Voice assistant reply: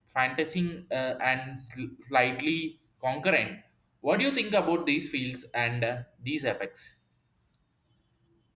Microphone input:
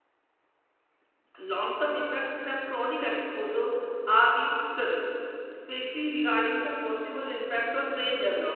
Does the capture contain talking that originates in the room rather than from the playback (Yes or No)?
Yes